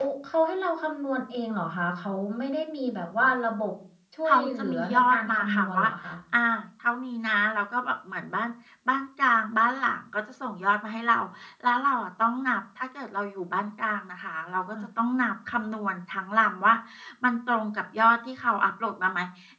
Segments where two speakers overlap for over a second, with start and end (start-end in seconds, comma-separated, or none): 4.3-5.8